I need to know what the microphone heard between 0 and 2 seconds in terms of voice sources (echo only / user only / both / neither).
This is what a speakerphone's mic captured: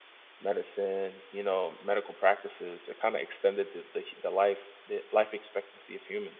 user only